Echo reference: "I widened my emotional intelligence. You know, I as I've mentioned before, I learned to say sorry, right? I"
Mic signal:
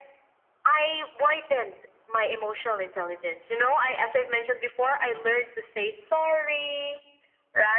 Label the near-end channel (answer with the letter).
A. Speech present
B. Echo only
B